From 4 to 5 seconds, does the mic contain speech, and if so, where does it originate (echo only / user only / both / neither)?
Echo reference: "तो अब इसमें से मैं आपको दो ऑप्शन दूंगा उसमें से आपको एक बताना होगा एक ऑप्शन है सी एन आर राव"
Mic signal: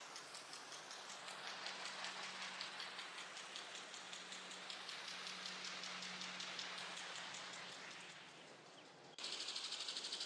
neither